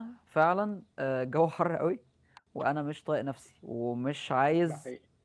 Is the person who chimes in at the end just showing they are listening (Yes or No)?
Yes